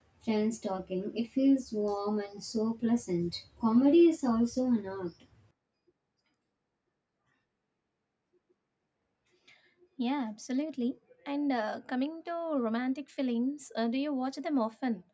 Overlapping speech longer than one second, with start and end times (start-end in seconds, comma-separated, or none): none